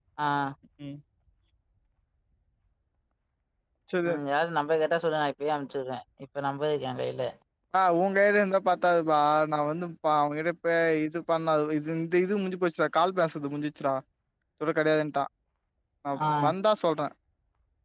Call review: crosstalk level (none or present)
none